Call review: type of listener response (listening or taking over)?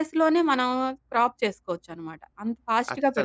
taking over